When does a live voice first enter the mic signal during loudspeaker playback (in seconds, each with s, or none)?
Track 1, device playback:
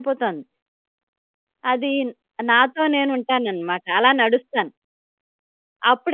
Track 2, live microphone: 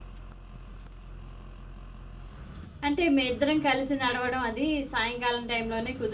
2.8 s